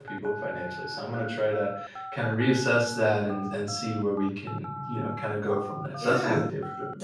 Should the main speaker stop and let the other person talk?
Yes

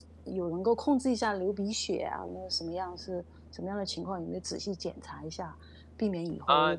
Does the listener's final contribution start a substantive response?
No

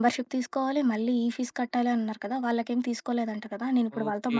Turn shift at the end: Yes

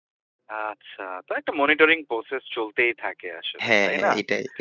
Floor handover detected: Yes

